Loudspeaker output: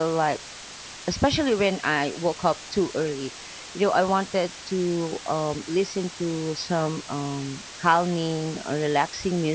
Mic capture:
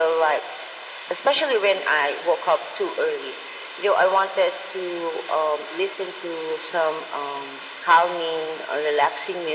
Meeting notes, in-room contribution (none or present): none